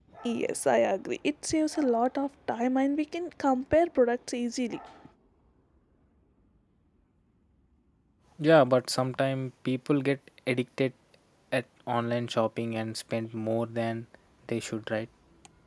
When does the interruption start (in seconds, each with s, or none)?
none